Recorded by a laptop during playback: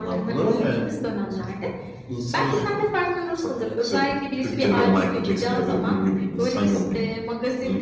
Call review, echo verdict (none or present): present